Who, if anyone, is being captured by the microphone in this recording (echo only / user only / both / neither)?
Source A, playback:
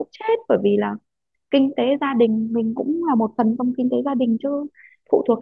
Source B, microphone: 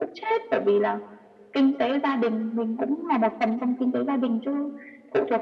echo only